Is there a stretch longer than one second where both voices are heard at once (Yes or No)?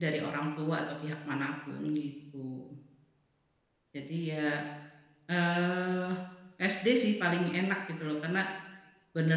No